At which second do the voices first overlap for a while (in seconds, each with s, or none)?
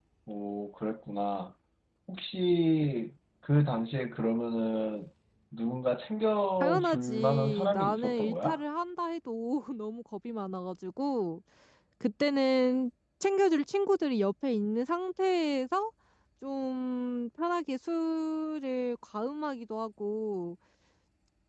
6.6 s